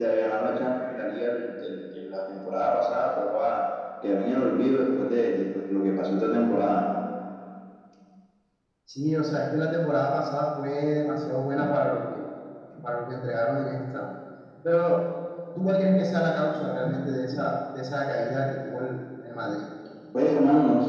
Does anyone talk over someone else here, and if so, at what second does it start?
none

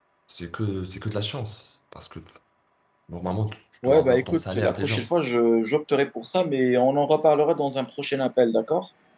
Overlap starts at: 3.8 s

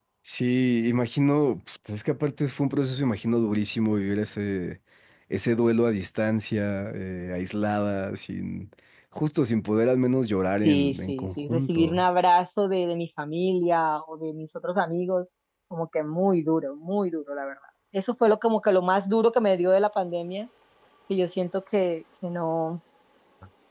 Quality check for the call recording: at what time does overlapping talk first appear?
10.6 s

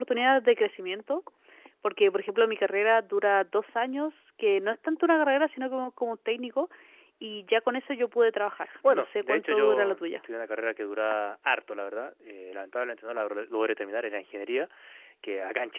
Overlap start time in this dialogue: 8.8 s

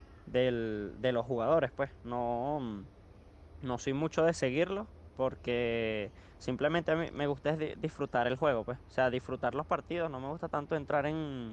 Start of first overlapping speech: none

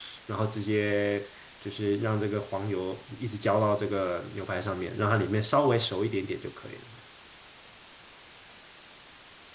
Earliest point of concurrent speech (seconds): none

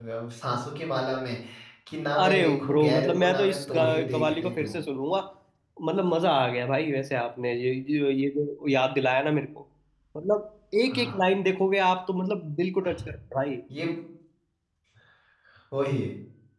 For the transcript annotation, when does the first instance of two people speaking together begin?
2.2 s

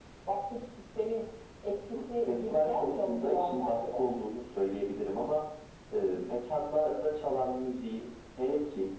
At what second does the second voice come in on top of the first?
2.2 s

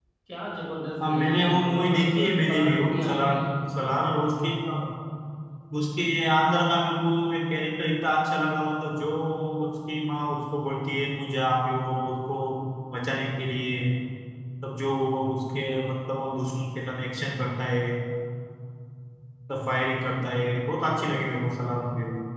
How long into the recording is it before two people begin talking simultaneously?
1.0 s

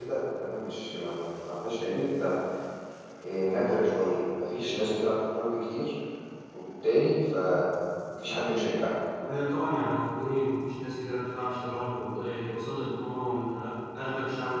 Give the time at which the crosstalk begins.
none

